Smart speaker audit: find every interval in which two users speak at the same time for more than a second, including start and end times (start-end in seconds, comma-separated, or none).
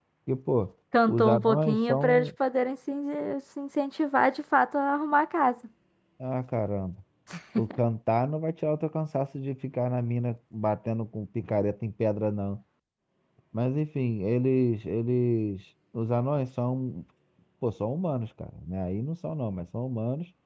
1.1-2.3